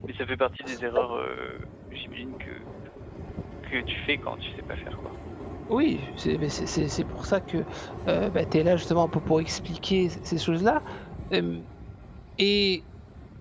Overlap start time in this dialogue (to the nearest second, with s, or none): none